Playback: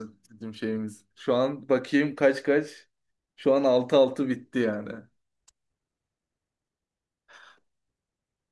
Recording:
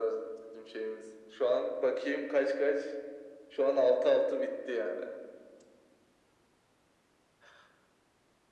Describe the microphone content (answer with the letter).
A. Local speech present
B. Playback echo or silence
B